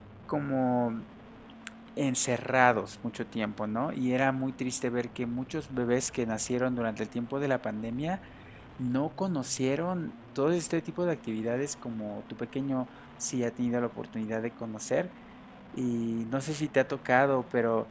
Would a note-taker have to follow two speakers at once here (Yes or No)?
No